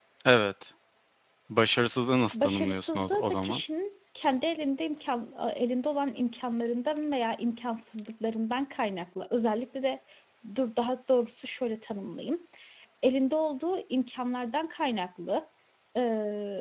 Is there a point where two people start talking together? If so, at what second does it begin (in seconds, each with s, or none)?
2.3 s